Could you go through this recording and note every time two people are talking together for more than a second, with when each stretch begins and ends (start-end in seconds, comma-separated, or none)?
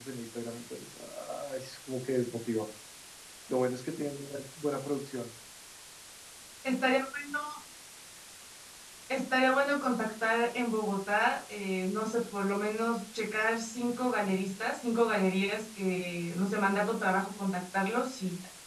none